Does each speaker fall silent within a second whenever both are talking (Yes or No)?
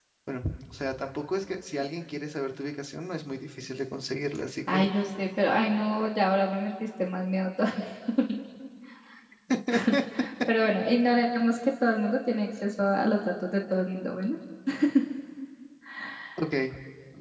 Yes